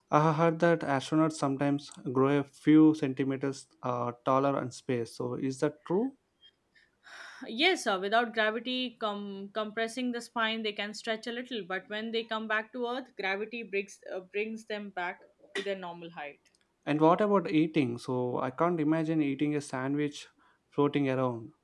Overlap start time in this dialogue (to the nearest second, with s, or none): none